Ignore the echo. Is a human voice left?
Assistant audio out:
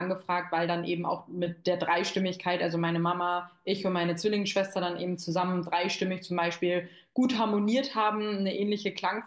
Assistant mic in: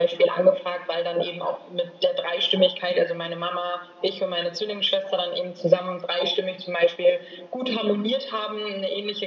No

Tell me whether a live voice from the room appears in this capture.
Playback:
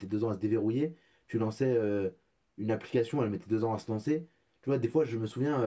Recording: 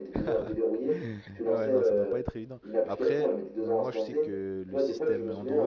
Yes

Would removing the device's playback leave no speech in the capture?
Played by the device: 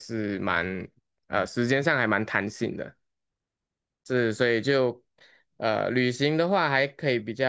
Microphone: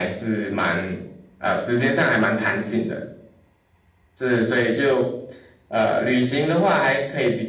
Yes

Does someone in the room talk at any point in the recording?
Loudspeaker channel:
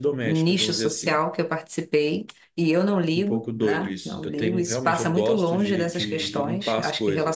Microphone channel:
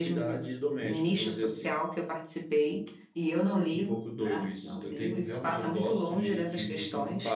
No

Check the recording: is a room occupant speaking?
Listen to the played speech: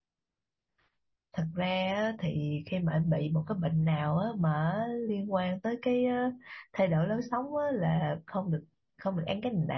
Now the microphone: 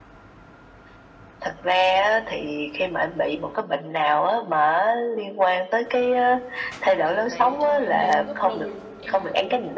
Yes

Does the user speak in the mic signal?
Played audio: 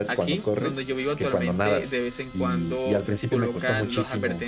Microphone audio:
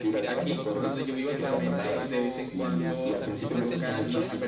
Yes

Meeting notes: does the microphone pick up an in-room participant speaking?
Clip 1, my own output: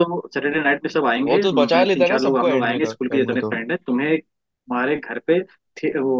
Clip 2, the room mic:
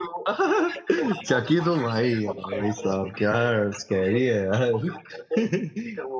Yes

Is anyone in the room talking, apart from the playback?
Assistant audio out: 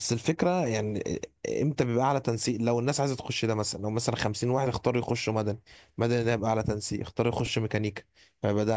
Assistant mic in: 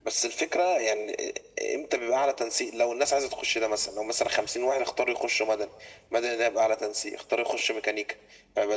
No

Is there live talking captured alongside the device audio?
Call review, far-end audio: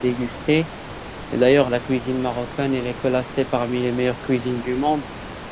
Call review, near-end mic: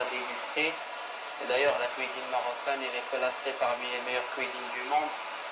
No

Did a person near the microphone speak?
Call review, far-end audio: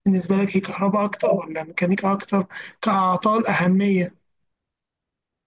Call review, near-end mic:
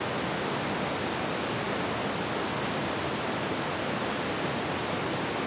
No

